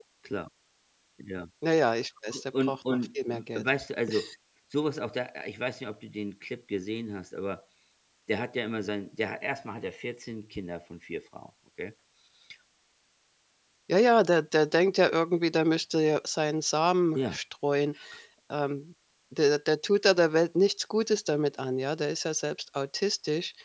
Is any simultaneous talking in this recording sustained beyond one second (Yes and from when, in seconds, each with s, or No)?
Yes, from 2.3 s